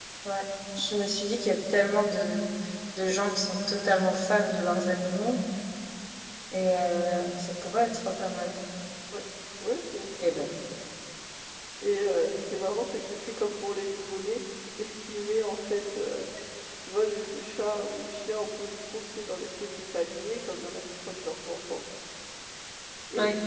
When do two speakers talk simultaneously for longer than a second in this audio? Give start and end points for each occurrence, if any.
none

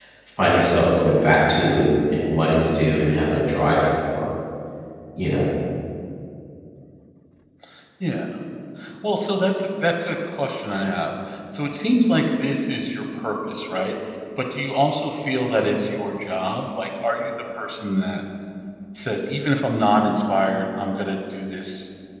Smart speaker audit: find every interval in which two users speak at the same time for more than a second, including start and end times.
none

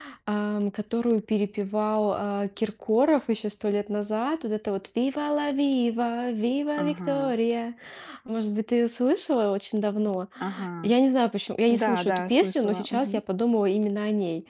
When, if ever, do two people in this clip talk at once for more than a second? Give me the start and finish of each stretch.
11.7-13.2

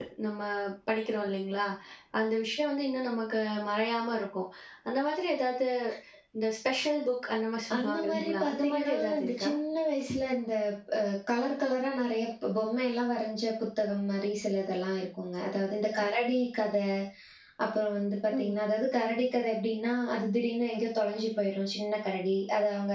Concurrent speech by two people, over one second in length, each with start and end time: 7.8-9.5

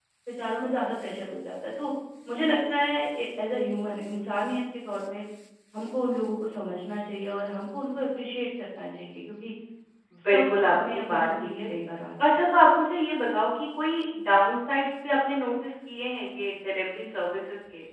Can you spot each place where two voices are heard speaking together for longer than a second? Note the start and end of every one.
10.3-11.7

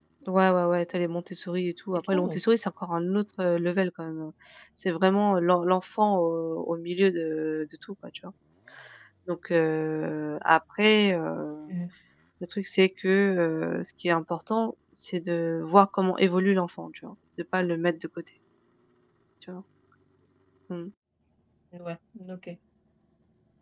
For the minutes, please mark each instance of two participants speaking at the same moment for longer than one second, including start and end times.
none

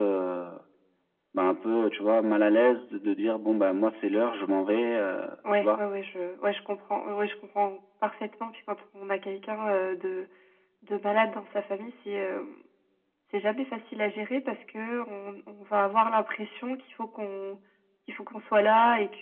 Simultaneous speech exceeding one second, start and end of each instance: none

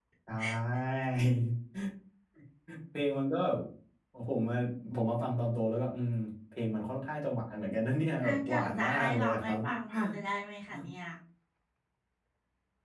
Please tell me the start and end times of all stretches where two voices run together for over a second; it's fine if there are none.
8.2-9.6

